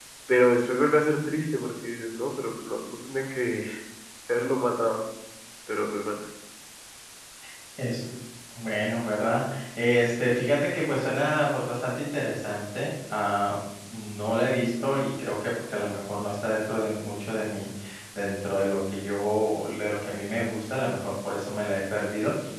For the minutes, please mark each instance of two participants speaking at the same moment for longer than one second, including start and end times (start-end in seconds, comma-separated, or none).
none